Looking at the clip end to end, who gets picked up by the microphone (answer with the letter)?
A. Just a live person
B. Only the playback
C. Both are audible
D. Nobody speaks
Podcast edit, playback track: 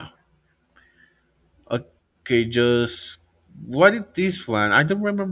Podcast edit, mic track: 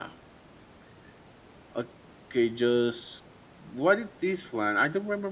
B